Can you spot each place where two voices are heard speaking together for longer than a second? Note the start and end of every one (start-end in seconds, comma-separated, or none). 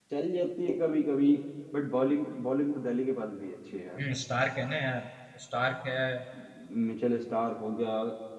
none